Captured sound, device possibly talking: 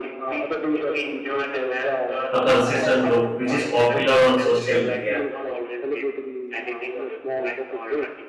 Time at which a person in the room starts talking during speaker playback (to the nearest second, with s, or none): 2 s